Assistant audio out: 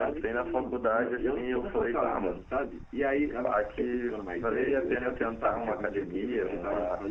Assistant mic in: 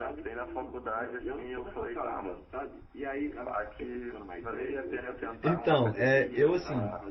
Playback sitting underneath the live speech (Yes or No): Yes